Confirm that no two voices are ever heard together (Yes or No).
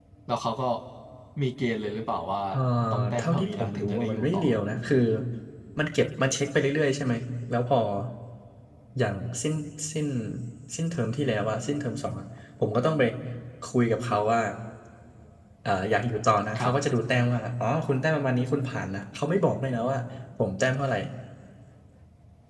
No